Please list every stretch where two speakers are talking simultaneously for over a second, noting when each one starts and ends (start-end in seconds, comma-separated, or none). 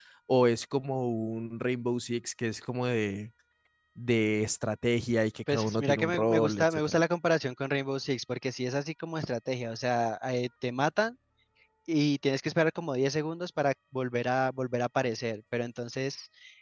5.5-7.0